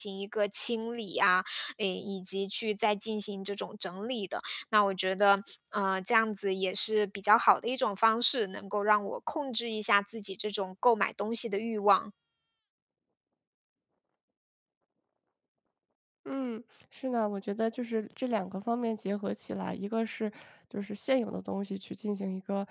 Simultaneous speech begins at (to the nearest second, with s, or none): none